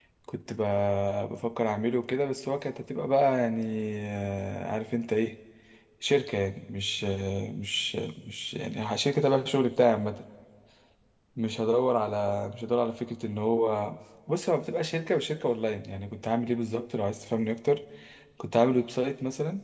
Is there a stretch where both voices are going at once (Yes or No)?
No